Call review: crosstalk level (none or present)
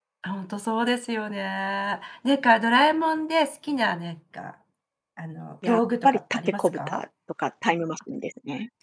present